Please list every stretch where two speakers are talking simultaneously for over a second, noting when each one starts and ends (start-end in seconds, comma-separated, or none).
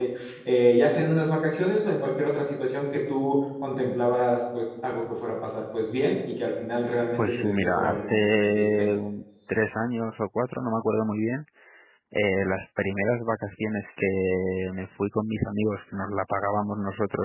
7.2-8.9